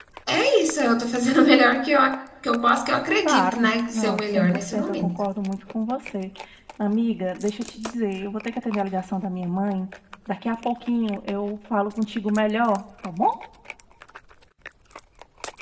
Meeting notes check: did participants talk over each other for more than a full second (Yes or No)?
Yes